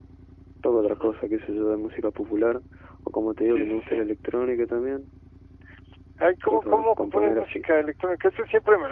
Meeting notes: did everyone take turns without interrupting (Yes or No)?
No